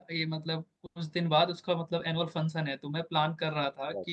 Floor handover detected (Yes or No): No